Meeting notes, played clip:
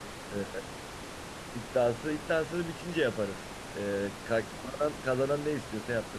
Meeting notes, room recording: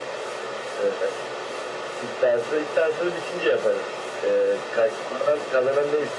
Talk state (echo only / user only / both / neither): echo only